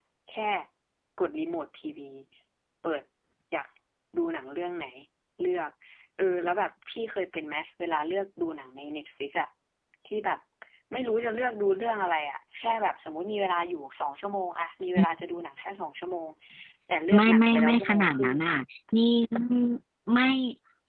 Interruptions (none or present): present